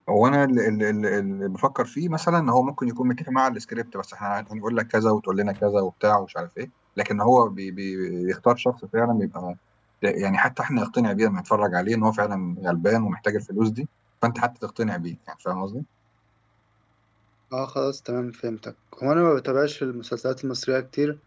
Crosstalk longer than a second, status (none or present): none